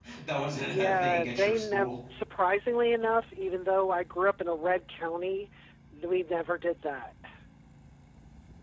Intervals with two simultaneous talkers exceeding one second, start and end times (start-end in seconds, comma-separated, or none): 0.6-1.9